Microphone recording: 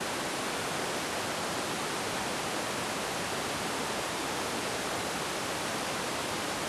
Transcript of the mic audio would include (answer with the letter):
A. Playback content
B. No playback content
B